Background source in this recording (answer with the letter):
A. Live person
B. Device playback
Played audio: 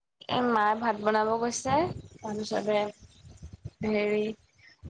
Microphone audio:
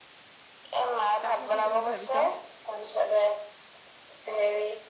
A